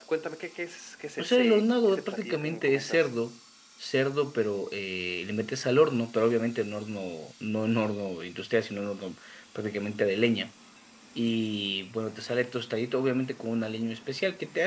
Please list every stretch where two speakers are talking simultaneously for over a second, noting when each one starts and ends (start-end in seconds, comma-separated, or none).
1.2-3.1